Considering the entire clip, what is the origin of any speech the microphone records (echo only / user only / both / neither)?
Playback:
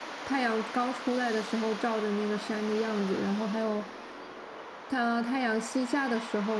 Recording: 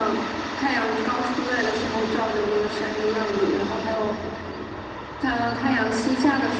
echo only